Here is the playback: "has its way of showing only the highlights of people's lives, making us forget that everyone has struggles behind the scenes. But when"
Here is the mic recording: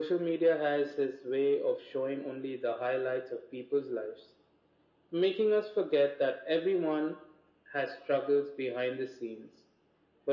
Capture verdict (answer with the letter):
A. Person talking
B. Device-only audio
B